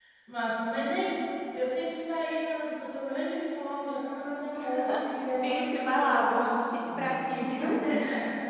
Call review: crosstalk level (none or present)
present